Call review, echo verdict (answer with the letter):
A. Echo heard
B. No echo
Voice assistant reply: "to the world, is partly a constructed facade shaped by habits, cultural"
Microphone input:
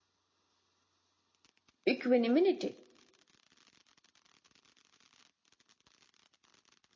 B